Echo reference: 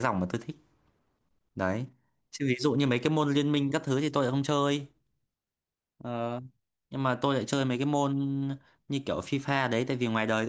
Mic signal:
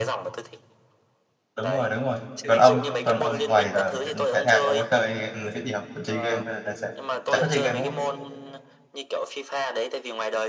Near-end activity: present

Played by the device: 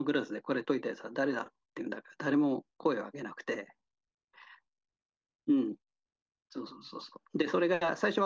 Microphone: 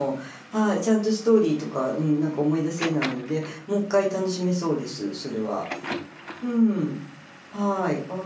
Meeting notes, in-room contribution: present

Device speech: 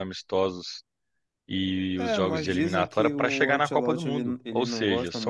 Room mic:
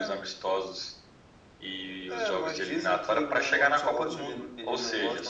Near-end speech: none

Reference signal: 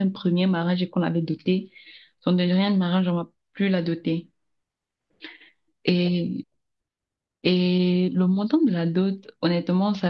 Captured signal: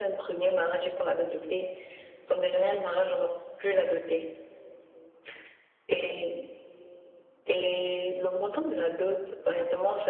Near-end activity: none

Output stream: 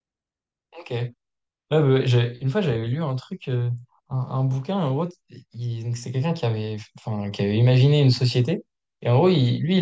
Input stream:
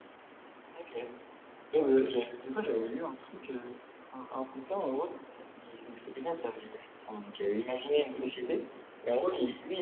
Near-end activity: none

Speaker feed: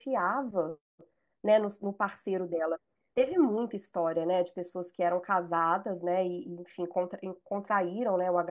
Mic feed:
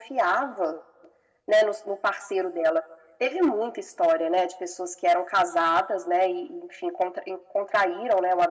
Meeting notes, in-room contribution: none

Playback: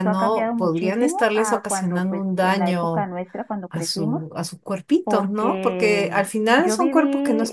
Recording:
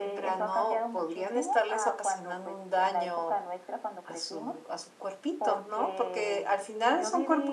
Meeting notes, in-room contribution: none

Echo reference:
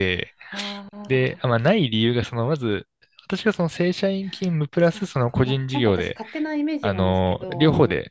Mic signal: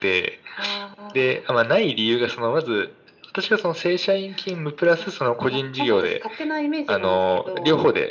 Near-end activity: none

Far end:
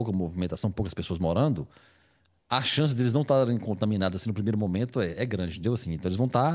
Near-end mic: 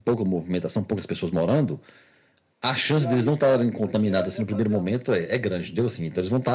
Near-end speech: present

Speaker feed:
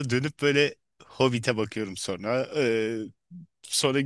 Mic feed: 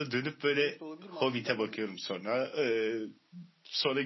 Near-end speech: present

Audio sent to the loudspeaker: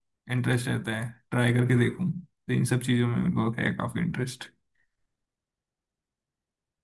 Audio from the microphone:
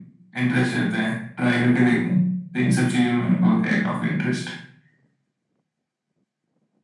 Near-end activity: none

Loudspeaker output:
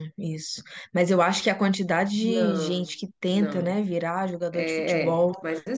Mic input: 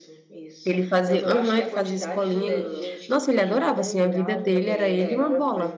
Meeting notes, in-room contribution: present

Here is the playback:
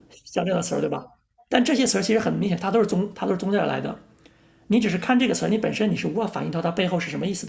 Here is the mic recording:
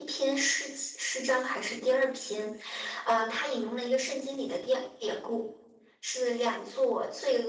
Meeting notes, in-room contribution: present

